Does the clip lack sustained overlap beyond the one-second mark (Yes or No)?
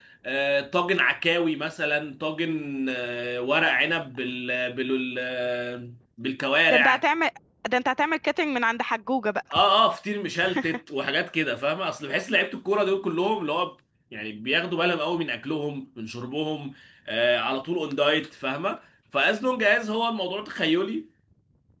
Yes